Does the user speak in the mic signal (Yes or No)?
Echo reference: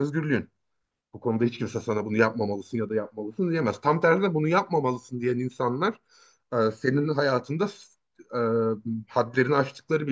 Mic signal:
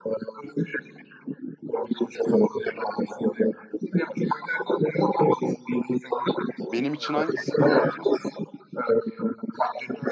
Yes